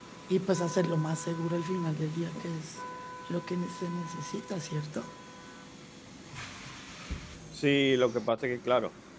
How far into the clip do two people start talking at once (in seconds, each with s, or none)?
none